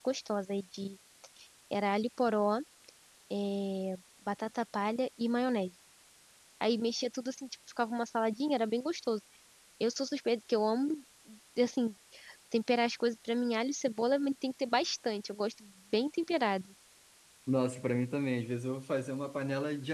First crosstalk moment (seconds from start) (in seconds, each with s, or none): none